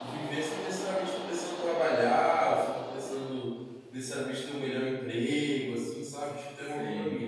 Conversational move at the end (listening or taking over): taking over